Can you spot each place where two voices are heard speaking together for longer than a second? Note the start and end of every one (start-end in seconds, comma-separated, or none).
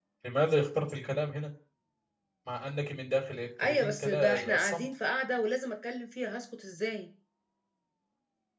3.6-4.8